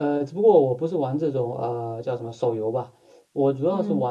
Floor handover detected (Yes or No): No